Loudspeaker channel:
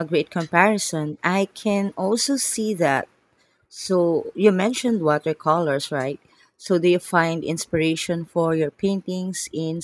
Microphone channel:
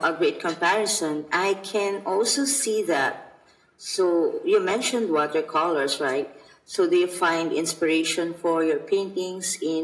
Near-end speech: none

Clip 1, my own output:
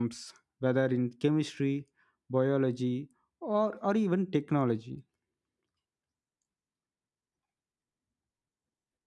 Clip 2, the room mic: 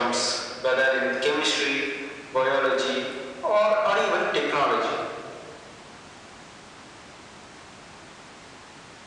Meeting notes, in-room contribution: none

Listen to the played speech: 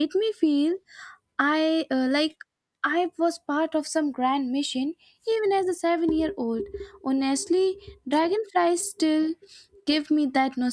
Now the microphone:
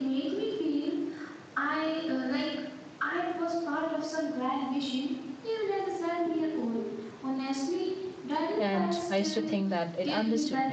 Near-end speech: present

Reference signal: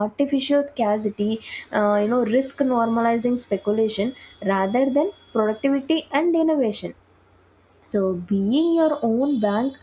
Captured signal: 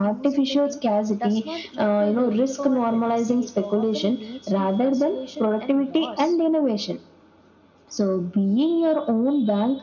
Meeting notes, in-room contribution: present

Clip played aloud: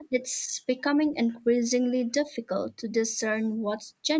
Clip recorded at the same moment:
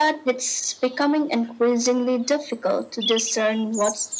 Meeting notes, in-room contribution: none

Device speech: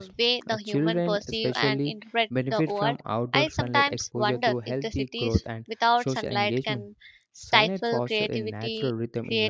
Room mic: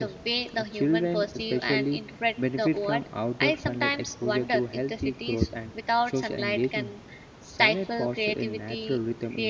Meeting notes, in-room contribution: none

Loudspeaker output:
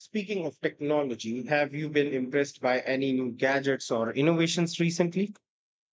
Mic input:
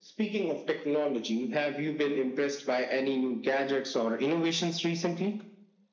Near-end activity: none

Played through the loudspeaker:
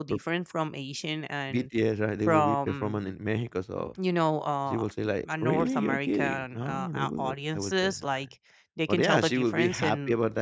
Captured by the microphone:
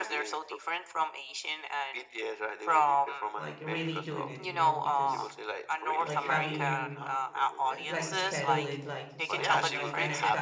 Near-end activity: present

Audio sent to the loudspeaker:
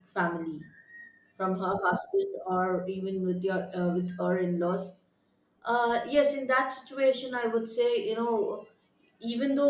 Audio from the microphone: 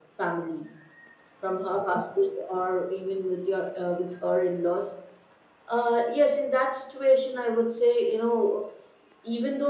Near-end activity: none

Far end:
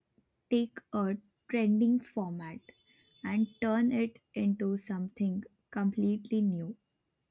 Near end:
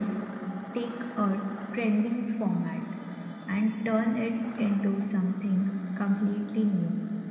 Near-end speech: none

